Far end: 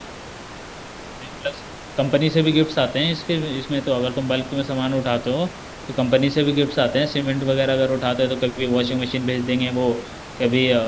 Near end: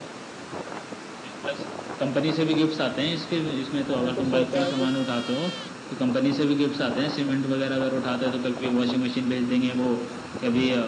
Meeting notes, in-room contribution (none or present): present